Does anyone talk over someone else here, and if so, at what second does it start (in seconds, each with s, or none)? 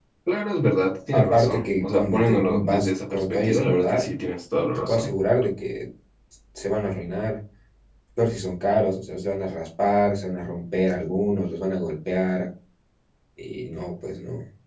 1.1 s